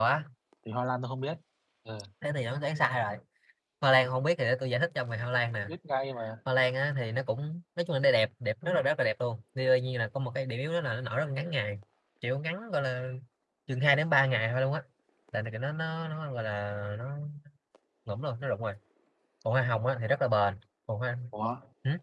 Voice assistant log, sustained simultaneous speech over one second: none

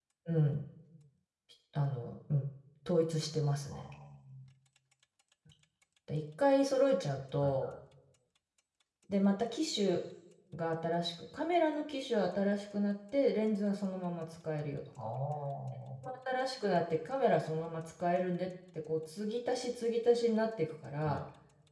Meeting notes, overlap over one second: none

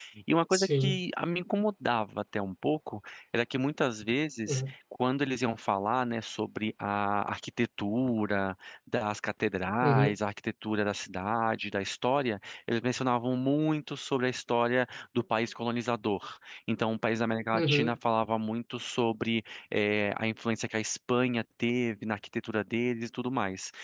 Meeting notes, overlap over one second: none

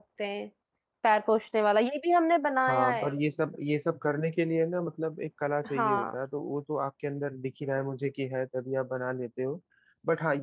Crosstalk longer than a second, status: none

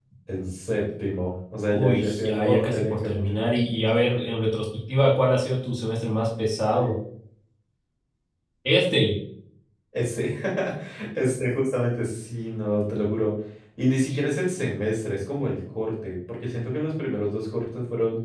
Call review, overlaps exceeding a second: present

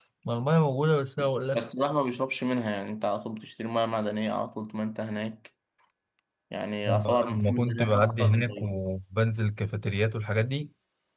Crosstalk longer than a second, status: present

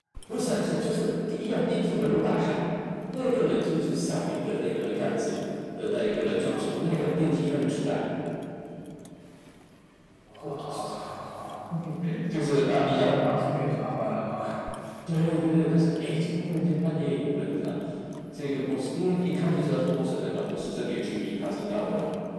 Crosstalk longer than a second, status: none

